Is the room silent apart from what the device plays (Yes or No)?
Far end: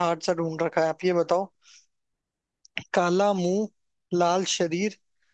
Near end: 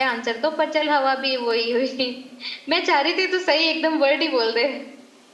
No